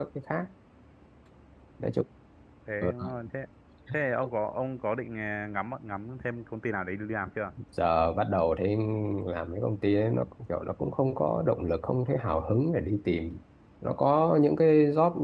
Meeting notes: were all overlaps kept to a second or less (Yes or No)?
Yes